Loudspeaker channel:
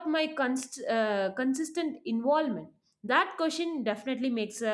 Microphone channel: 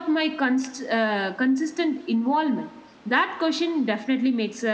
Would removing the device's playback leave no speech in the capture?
Yes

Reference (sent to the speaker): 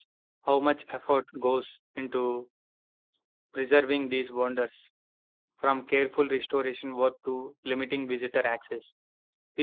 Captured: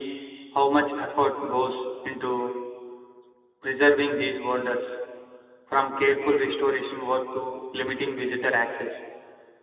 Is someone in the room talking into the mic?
No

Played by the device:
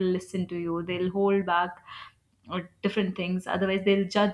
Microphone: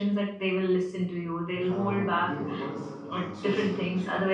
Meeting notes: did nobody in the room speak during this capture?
No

